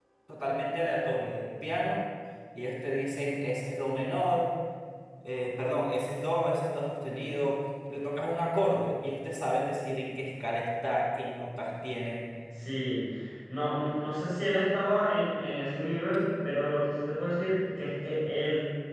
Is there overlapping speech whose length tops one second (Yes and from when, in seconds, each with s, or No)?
No